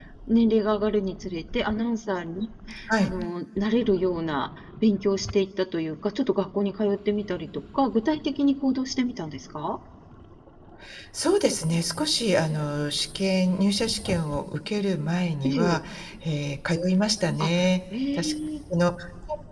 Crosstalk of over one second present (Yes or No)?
No